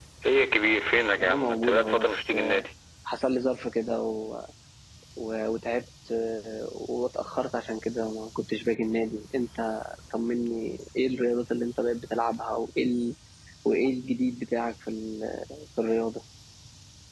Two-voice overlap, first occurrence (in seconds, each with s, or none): 1.2 s